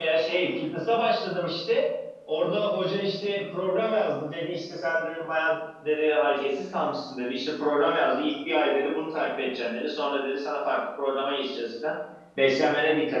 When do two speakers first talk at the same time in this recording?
none

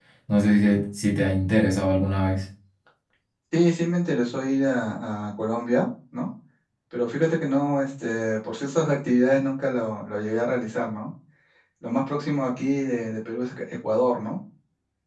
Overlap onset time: none

